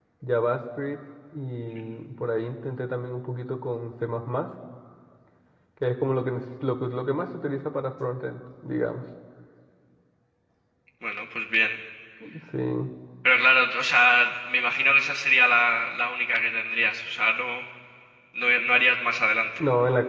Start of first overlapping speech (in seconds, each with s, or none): none